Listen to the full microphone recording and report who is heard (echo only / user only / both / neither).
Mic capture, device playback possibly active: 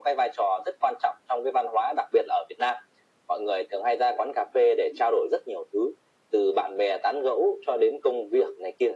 echo only